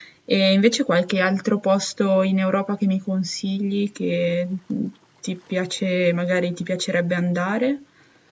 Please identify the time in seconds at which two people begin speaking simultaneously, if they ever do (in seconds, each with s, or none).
none